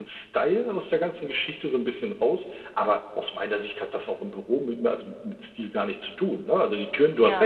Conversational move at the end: listening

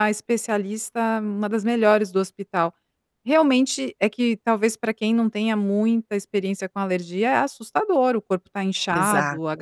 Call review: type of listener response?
listening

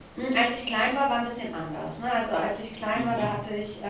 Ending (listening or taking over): listening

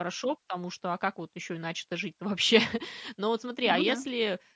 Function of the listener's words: listening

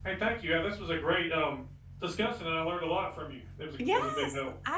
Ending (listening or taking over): taking over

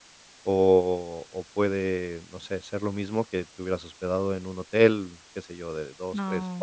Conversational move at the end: listening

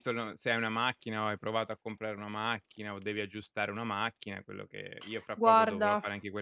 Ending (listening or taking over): listening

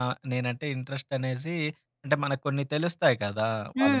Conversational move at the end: taking over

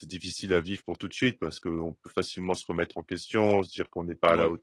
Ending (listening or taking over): listening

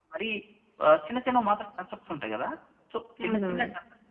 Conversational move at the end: listening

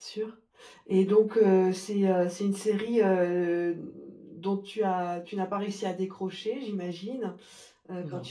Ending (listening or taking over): listening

